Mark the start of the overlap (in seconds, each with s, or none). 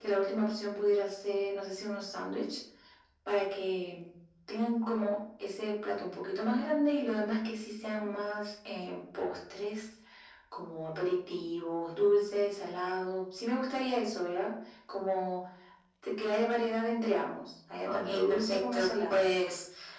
17.9 s